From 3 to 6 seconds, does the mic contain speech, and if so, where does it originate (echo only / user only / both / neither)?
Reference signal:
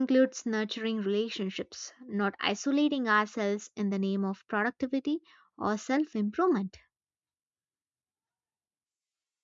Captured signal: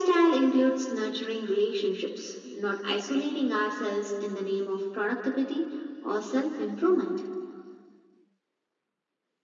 echo only